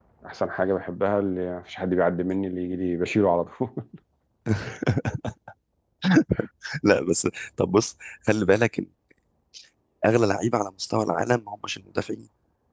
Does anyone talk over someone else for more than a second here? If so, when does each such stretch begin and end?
none

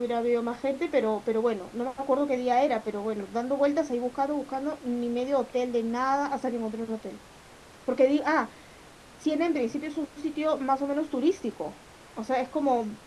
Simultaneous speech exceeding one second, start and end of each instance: none

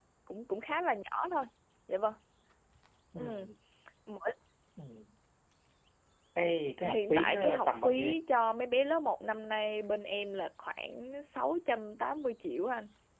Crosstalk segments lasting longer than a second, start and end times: 6.8-8.2

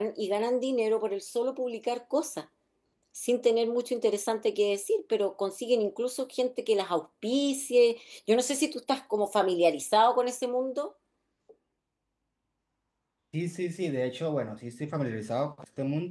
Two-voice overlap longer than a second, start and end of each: none

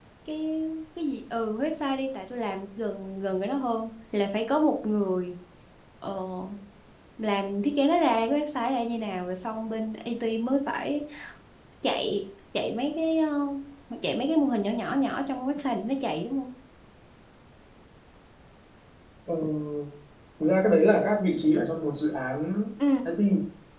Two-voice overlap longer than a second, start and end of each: none

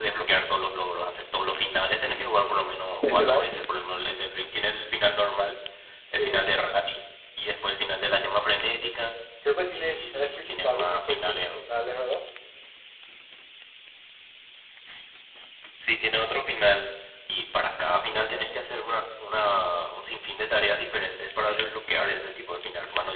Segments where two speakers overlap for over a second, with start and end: 9.7-11.6

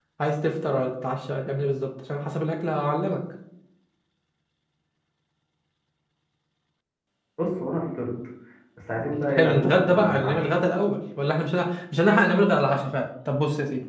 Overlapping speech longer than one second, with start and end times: 9.3-10.5

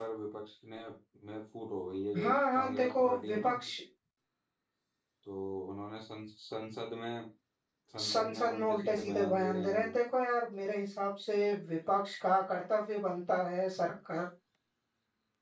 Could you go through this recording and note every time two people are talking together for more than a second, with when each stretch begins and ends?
2.2-3.5, 8.0-9.9

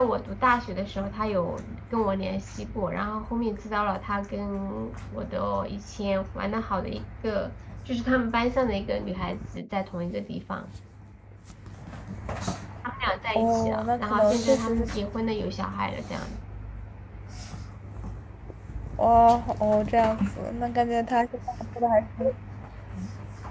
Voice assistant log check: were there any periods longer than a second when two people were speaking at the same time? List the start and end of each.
13.3-14.8

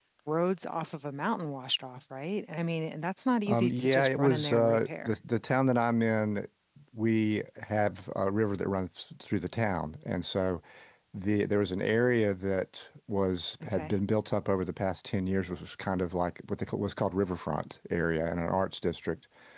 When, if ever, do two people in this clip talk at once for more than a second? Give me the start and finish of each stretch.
3.5-5.1

